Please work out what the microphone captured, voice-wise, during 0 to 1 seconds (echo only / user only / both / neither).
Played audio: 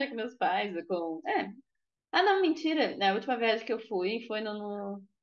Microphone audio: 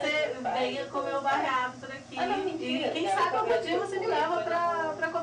both